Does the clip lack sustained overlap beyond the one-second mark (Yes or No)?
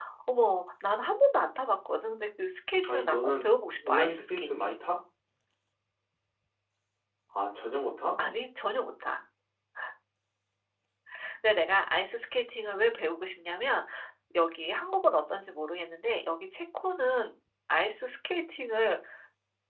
No